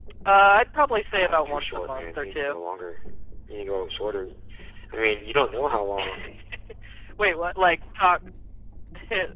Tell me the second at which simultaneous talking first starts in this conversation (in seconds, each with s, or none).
1.1 s